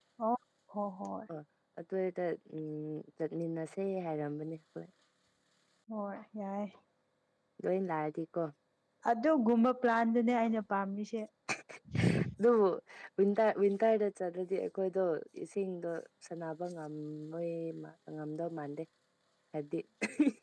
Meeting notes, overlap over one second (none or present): none